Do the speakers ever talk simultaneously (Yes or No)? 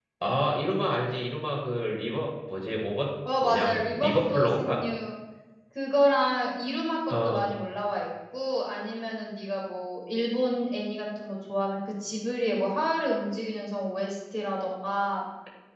Yes